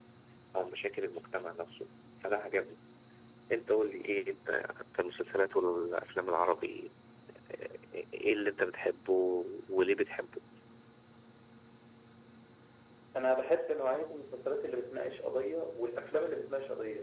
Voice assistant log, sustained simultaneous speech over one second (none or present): none